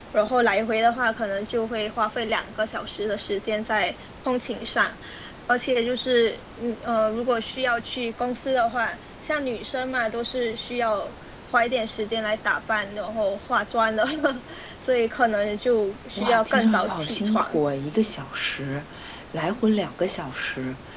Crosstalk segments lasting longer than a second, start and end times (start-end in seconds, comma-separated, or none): 16.2-17.6